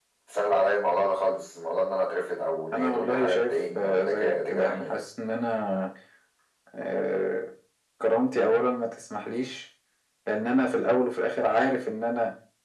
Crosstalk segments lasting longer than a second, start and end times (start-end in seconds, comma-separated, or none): 2.7-5.0